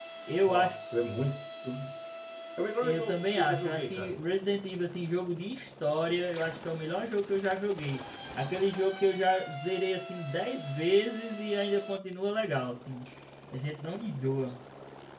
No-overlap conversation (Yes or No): No